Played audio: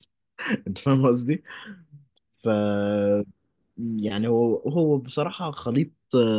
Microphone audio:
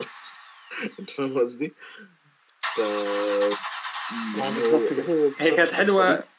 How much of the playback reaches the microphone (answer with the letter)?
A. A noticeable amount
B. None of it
A